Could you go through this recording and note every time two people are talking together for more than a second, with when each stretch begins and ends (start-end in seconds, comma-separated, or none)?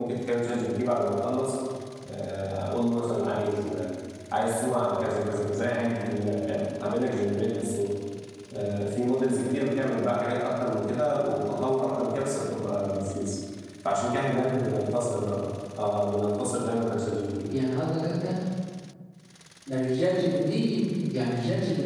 none